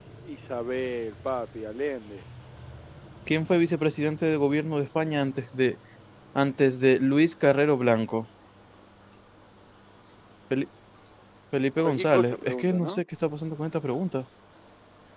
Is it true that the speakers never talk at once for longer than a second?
No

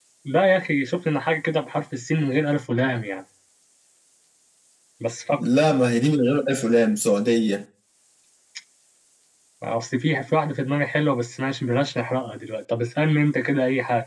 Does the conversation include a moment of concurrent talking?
No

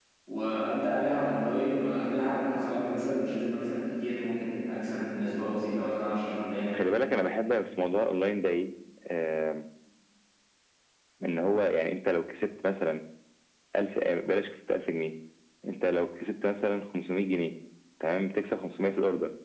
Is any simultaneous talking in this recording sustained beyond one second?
No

